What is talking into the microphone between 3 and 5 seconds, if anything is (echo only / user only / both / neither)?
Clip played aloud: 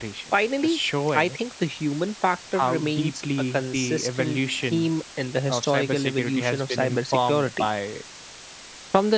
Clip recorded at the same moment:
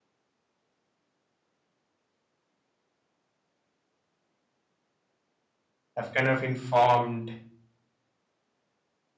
neither